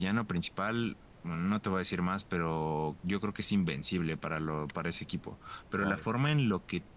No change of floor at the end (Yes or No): Yes